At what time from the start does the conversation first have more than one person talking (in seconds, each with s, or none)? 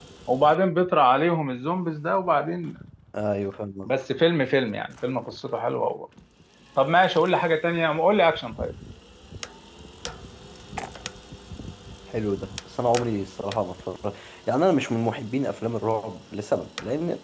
none